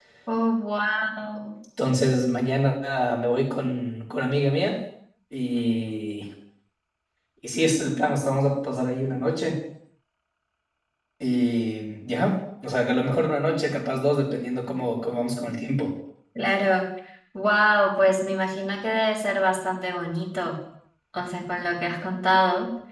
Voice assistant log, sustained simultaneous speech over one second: none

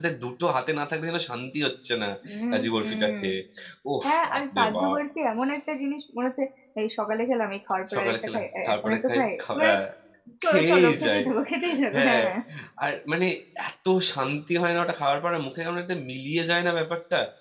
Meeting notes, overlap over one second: present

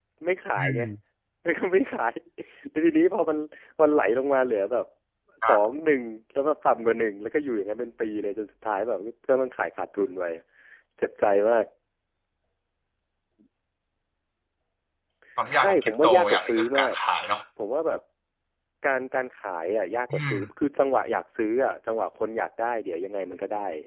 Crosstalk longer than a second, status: present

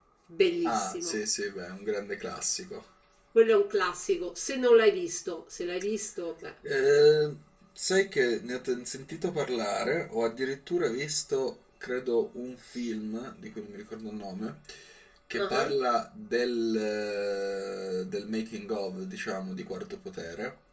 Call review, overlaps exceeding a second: none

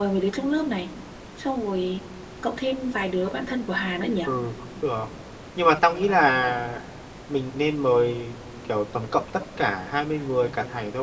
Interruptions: none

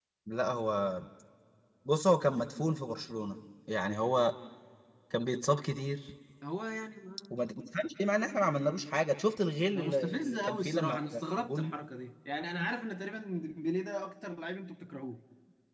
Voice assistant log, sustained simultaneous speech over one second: present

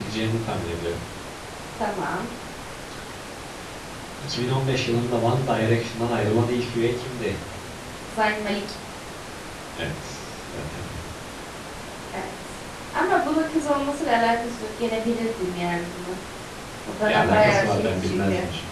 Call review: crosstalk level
present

